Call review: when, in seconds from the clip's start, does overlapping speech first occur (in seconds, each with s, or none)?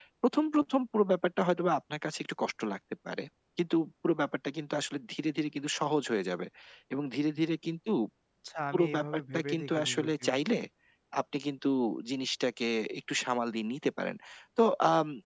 8.7 s